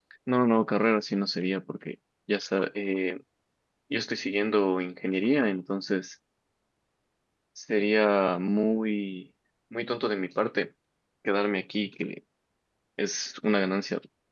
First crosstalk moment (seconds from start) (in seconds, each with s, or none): none